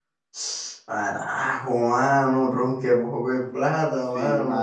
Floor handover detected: Yes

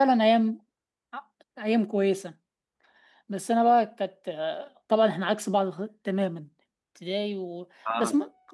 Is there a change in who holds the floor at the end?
No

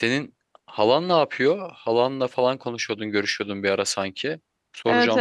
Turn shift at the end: Yes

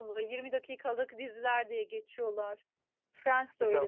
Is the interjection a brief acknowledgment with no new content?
No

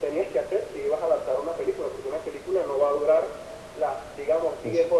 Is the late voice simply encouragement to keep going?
Yes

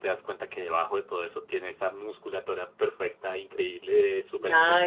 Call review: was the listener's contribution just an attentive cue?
No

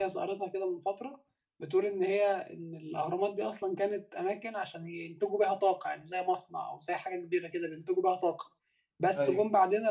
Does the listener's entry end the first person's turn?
No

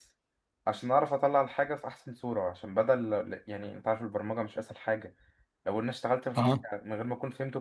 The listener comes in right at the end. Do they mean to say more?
No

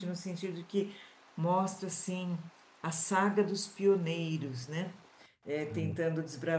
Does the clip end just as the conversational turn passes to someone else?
No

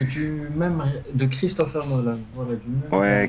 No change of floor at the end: No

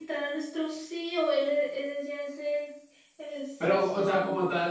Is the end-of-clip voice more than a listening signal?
Yes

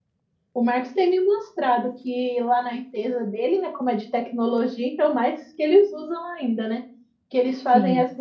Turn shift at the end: No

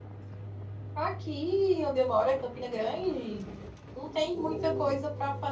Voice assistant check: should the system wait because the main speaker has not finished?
Yes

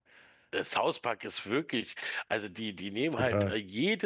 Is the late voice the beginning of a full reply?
No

